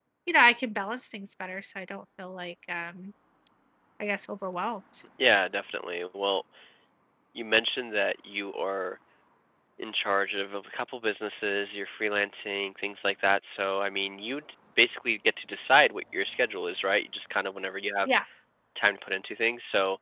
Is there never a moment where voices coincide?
Yes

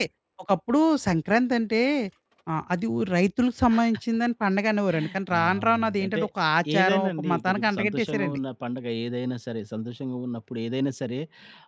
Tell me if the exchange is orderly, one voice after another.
No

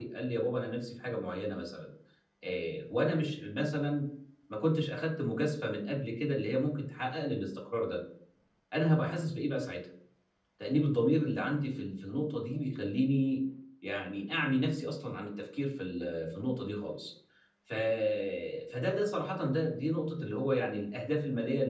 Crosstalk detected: No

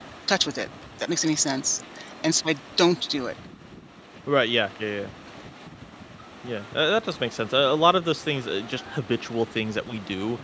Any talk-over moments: No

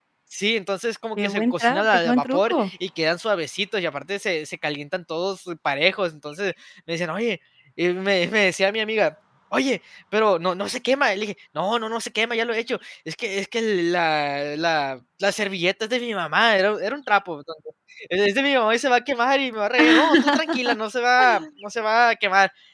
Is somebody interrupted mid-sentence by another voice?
Yes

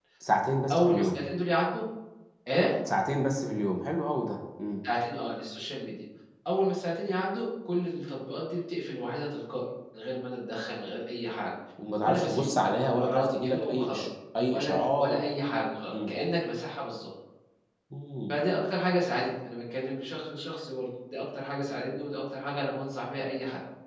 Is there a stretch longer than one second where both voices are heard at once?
Yes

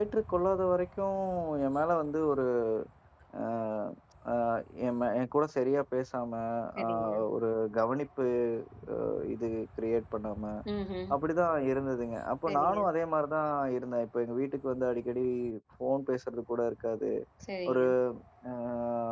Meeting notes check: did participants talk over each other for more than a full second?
No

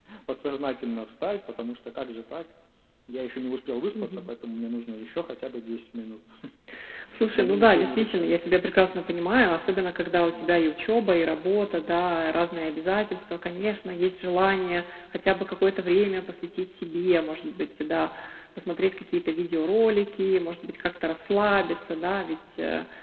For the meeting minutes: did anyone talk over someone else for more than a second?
Yes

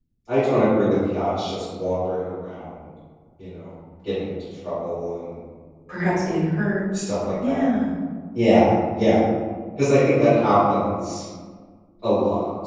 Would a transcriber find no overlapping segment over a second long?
Yes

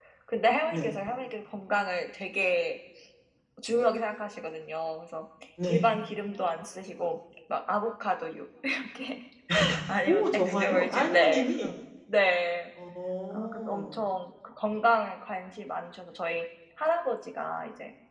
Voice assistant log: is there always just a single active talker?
No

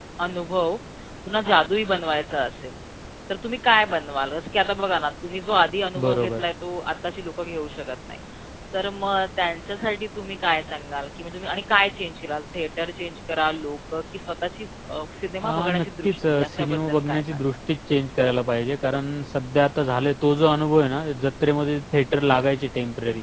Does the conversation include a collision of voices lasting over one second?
Yes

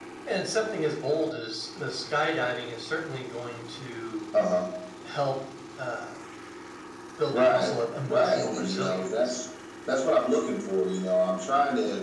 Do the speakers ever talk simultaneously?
Yes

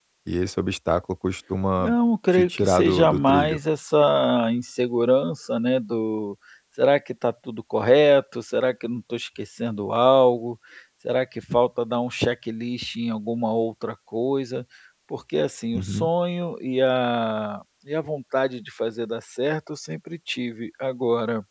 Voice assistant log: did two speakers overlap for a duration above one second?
Yes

